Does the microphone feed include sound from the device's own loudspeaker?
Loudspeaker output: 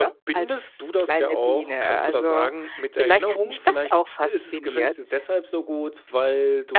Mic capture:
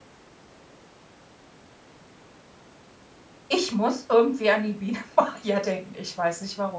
No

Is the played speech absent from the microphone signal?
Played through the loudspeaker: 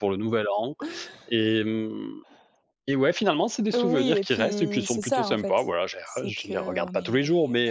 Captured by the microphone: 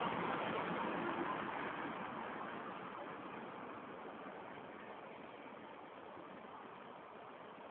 Yes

